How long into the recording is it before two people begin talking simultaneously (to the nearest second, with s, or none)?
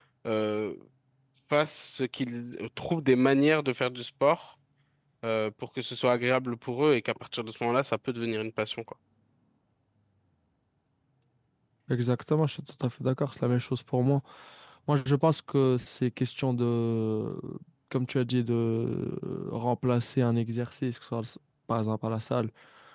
none